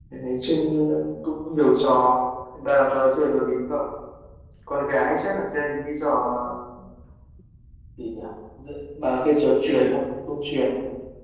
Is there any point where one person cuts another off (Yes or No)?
No